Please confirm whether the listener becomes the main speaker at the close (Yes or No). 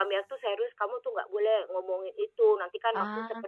No